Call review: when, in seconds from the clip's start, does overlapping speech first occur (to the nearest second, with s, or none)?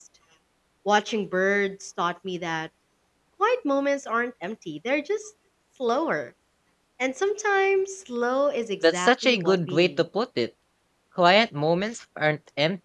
9 s